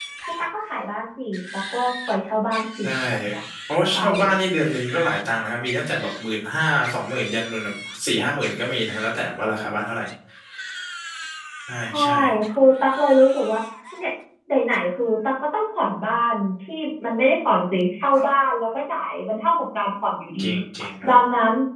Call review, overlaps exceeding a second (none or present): none